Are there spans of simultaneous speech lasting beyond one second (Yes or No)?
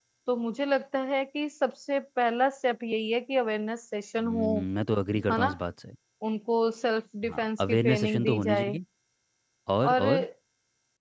Yes